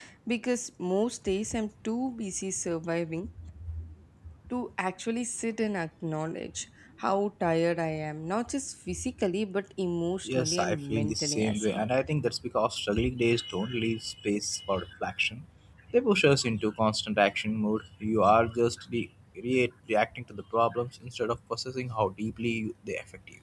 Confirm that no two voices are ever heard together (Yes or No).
No